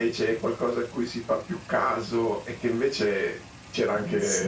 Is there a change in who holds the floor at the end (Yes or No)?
No